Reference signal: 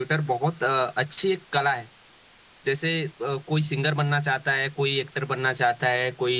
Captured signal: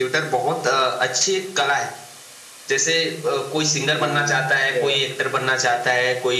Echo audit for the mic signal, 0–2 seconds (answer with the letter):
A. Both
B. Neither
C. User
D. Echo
D